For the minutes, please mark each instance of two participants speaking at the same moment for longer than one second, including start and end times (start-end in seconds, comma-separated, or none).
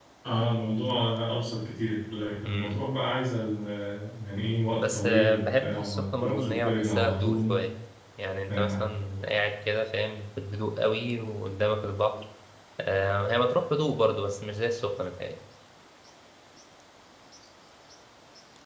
4.8-7.5